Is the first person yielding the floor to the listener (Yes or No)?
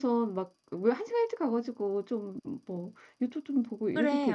Yes